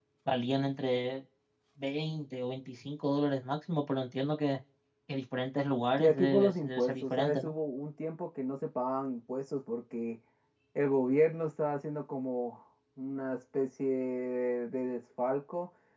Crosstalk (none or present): present